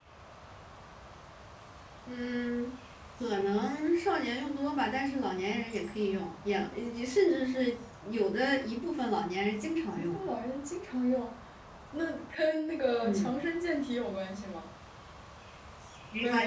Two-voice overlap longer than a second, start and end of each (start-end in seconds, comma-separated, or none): none